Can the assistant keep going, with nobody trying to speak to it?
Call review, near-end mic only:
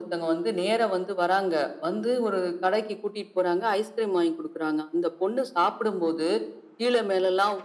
Yes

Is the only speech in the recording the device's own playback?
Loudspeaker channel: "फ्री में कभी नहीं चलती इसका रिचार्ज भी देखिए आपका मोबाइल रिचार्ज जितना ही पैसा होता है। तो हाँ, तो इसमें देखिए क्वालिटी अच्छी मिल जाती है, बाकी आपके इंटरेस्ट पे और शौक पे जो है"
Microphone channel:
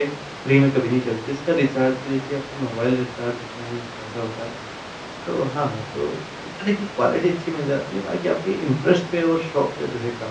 Yes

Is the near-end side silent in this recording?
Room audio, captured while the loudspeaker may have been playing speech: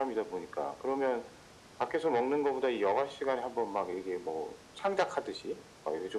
Yes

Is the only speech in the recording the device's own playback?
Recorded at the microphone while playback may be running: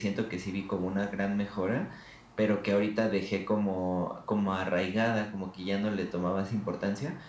Yes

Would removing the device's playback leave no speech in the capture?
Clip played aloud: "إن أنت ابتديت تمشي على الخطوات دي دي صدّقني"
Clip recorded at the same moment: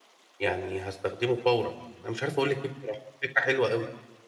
No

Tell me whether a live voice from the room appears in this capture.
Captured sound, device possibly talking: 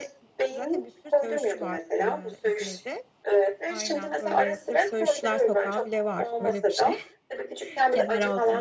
Yes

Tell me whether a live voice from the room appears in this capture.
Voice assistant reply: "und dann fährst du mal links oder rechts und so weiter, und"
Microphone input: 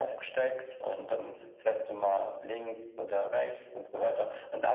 No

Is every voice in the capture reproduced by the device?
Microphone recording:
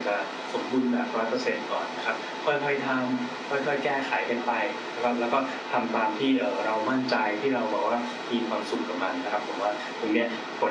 Yes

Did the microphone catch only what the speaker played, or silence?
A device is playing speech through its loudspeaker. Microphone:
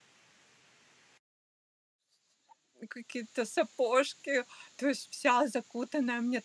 No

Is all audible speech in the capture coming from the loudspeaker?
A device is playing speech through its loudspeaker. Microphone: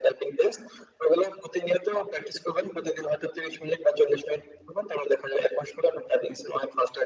Yes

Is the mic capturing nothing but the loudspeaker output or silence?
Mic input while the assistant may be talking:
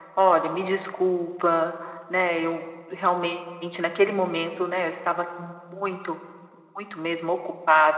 Yes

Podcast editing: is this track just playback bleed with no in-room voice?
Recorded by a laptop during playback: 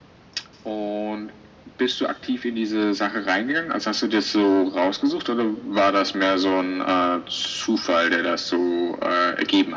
Yes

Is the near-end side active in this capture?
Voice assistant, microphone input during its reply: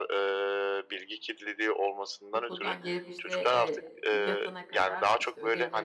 Yes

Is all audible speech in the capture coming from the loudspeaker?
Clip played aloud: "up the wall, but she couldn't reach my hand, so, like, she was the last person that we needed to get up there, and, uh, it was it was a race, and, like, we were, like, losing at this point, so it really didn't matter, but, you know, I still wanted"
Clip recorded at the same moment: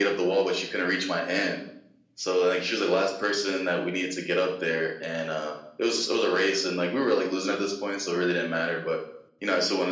Yes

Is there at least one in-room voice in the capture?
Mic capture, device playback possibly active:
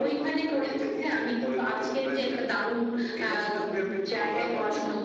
No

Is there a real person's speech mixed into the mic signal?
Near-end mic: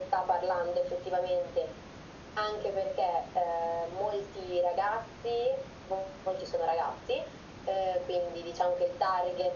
No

